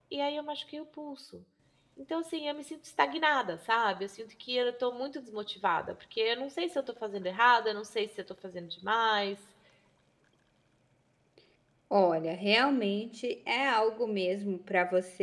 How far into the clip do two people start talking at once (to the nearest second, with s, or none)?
none